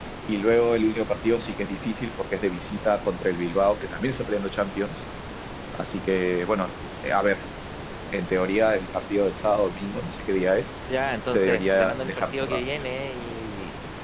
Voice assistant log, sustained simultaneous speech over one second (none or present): present